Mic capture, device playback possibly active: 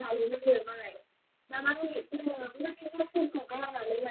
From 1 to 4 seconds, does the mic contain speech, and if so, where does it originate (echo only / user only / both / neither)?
echo only